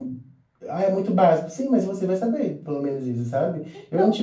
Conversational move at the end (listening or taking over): listening